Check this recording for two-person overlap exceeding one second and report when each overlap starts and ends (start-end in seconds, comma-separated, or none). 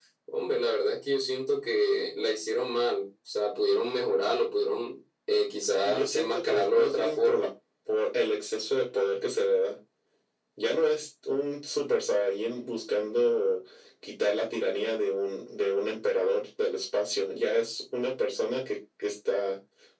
5.8-7.5